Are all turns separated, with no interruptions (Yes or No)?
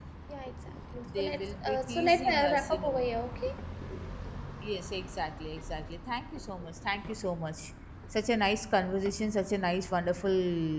No